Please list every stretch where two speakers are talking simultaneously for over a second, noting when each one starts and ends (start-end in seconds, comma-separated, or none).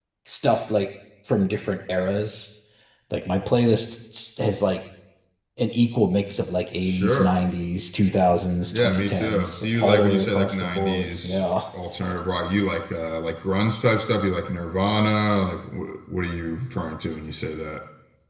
8.7-11.6